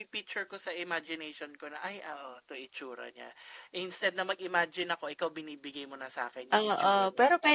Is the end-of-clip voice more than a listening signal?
Yes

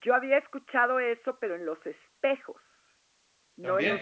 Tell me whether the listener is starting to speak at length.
Yes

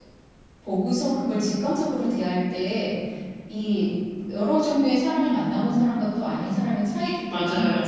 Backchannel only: No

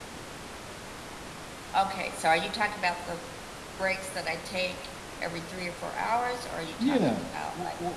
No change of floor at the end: No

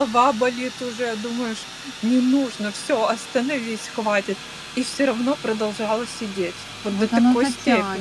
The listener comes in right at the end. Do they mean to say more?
Yes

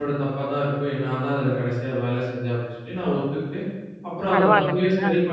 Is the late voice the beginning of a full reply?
No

